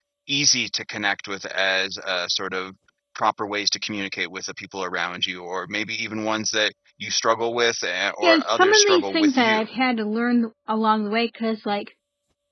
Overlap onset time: 8.2 s

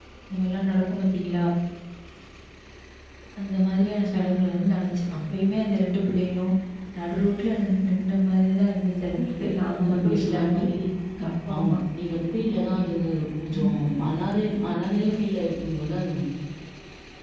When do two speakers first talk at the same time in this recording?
9.4 s

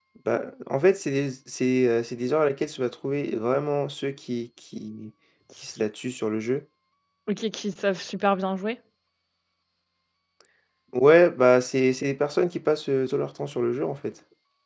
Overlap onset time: none

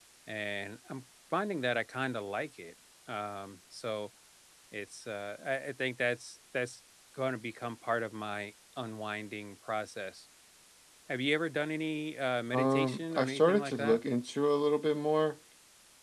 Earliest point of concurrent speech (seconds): 12.5 s

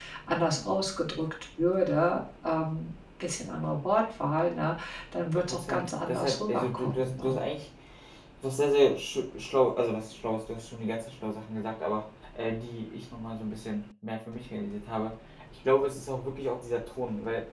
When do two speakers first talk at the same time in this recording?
5.3 s

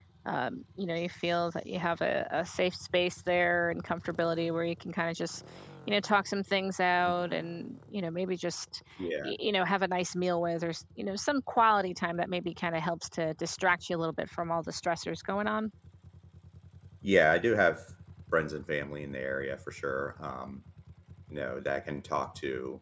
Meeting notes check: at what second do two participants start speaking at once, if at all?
none

